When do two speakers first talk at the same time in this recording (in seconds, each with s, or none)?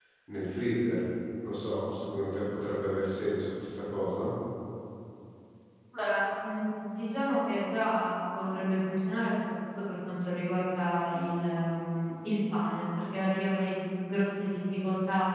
none